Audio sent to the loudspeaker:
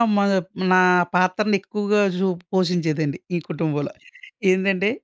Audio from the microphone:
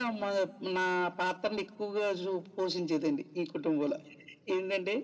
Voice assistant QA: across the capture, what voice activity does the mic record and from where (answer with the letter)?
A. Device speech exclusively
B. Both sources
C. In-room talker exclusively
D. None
A